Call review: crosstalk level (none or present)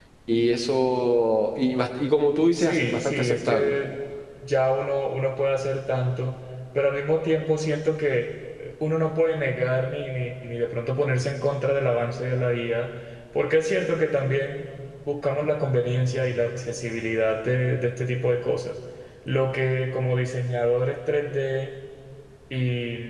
present